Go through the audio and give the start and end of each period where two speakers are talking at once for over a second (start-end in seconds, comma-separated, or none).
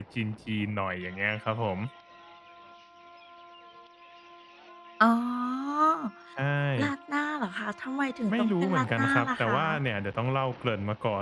8.3-9.6